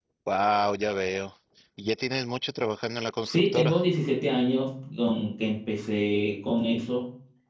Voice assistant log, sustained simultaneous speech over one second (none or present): none